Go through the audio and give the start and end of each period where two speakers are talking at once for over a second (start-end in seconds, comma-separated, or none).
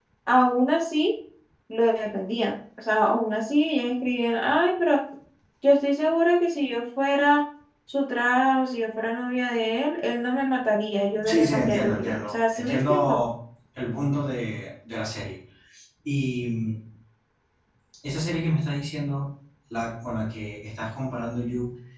11.2-13.2